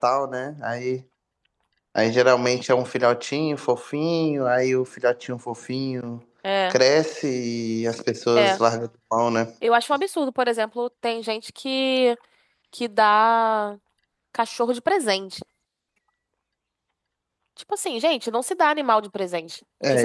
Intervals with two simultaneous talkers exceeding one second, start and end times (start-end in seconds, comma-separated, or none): none